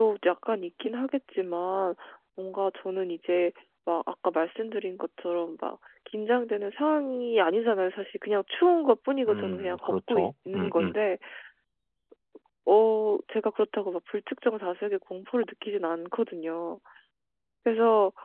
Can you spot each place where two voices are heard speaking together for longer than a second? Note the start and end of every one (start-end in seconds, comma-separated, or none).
9.3-11.0